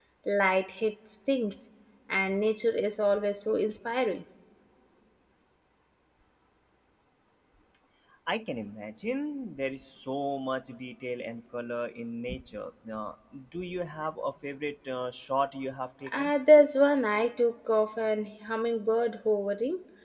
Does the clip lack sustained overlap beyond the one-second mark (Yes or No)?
Yes